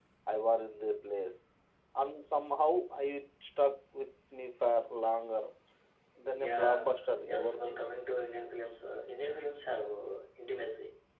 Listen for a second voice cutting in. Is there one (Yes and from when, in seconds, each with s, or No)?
Yes, from 6.4 s